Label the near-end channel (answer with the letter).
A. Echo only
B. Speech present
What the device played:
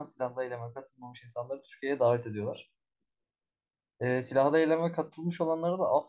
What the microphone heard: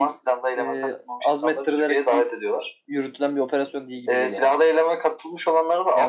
B